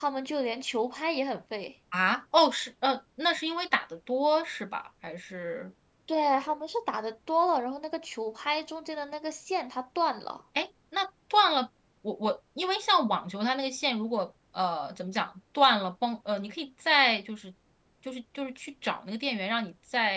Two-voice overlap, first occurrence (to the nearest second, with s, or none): none